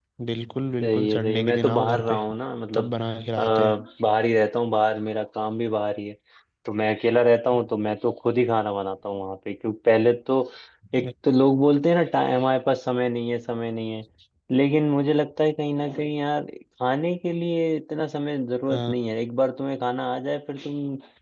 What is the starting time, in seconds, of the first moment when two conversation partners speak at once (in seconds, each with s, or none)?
0.8 s